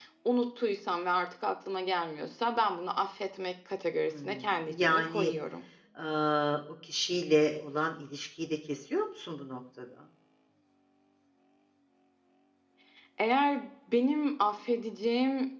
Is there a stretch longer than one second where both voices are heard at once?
Yes, from 4.1 s

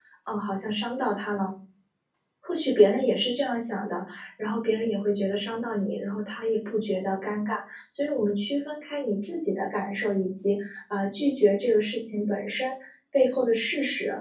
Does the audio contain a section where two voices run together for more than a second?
No

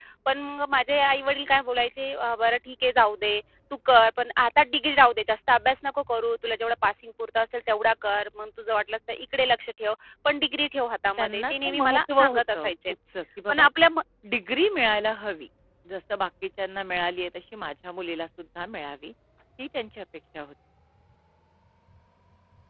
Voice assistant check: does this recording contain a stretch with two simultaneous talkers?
Yes, from 11.2 s

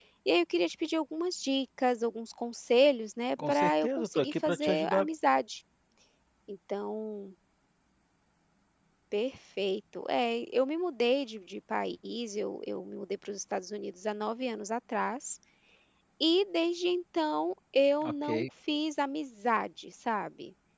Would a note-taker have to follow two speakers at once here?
Yes, from 3.5 s

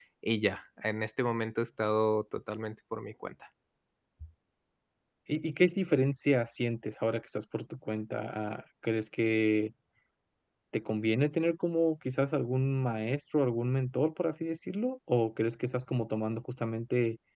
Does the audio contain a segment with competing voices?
No

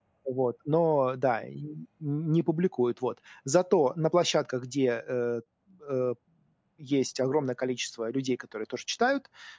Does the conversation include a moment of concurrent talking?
No

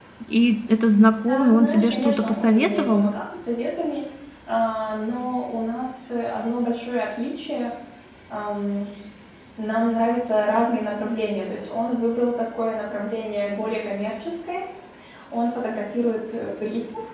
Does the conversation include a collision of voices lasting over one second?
Yes, from 1.2 s

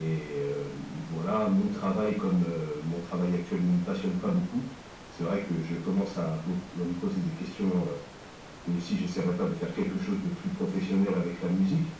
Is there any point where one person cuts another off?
No

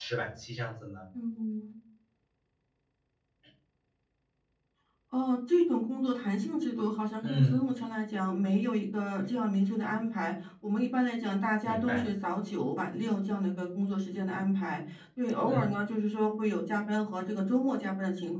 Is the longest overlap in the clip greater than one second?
No

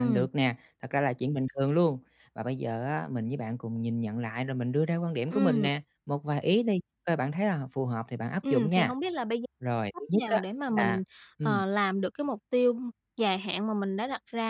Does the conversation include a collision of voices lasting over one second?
No

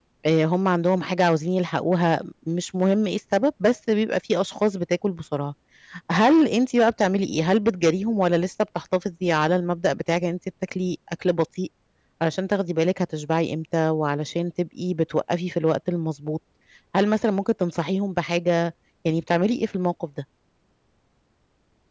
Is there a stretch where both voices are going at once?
No

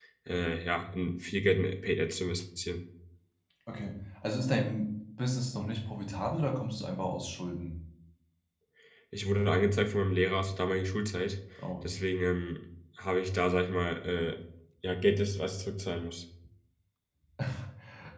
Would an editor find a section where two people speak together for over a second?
No

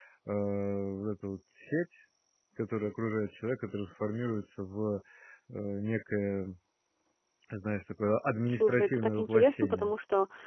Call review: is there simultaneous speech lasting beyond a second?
Yes, from 8.5 s

